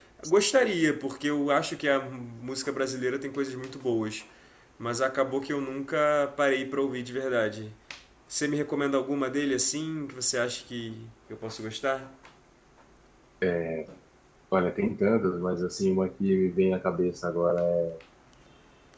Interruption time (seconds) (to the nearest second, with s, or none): none